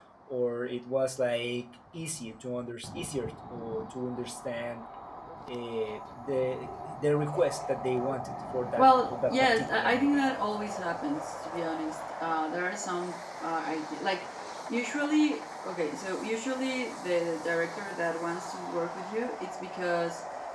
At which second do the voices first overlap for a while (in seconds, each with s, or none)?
8.8 s